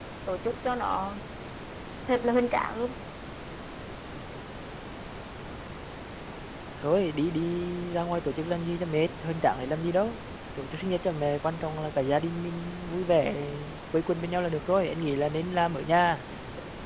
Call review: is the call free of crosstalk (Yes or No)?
Yes